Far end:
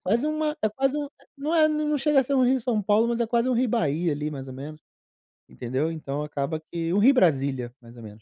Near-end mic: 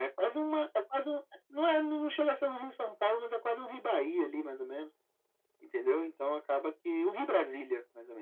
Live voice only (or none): none